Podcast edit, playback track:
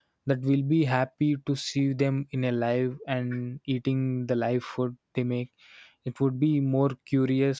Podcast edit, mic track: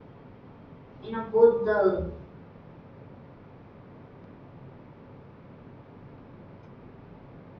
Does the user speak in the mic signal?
Yes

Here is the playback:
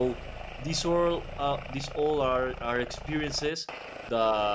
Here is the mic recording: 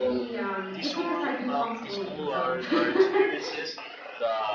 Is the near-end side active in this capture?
Yes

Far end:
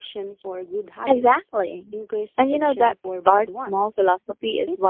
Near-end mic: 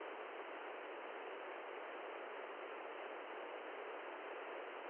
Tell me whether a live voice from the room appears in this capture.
No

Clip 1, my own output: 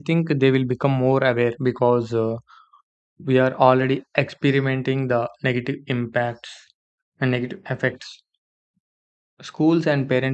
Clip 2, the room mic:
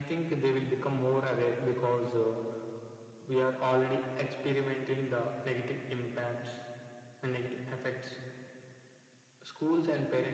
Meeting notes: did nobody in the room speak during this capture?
Yes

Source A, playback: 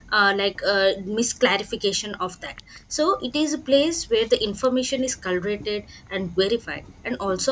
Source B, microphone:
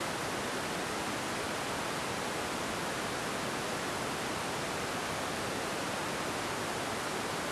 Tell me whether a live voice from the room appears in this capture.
No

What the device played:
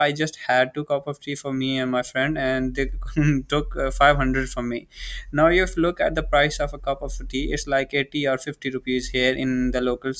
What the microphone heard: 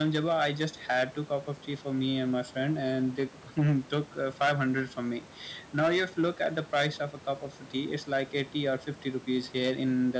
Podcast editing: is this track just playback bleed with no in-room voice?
Yes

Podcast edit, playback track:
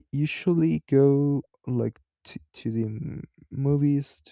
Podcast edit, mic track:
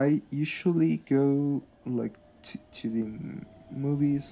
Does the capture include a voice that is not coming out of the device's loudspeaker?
No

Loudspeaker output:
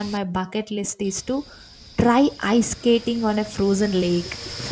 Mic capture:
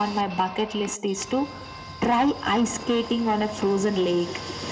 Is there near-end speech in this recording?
No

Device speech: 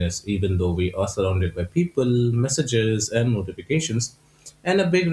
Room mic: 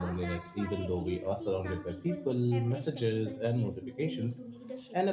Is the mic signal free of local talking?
No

